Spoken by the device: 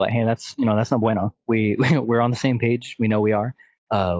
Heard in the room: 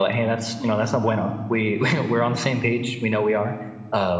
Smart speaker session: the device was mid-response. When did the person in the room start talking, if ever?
none

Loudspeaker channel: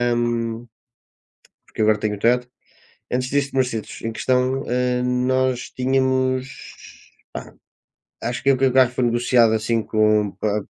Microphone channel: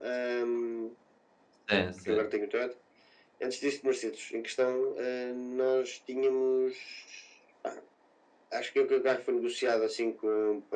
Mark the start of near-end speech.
1.7 s

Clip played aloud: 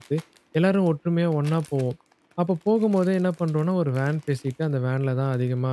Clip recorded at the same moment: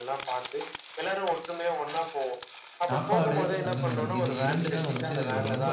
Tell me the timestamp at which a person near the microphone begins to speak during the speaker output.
2.9 s

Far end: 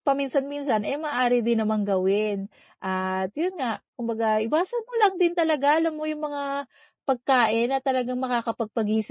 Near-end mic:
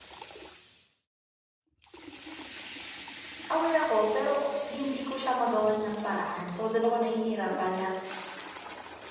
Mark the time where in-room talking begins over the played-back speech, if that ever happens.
3.5 s

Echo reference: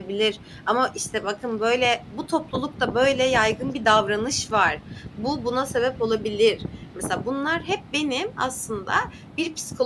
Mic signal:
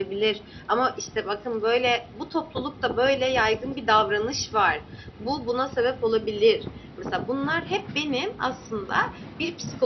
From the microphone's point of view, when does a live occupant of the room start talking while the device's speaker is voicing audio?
none

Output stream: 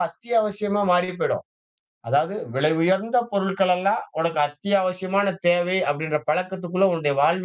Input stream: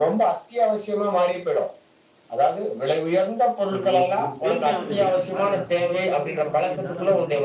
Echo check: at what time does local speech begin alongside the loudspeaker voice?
3.7 s

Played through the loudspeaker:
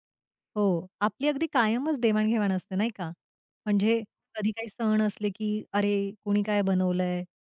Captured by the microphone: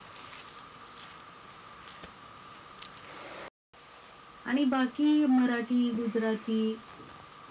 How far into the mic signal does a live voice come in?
4.4 s

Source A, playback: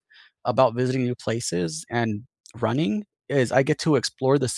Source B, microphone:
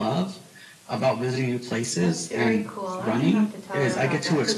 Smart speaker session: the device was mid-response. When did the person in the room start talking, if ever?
2.0 s

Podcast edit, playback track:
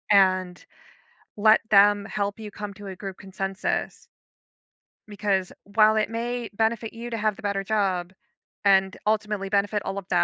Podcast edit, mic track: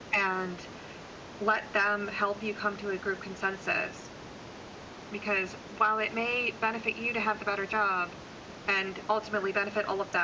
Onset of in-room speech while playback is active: none

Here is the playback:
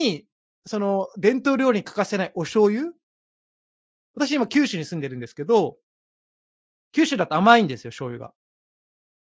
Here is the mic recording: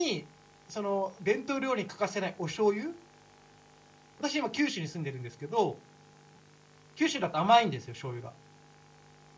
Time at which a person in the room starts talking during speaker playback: none

